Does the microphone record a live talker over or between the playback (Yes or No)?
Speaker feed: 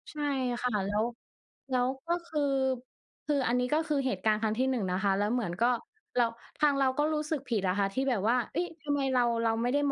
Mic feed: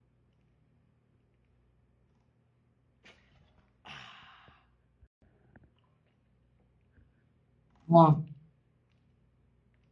Yes